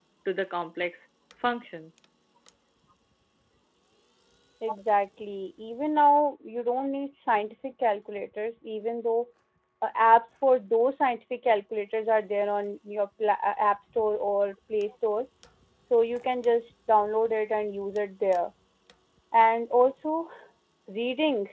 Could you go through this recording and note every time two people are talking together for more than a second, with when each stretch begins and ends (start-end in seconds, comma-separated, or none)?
none